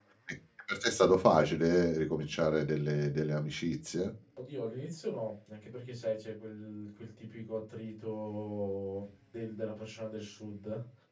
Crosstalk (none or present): none